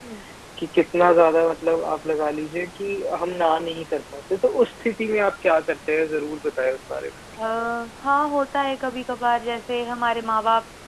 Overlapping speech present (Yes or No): No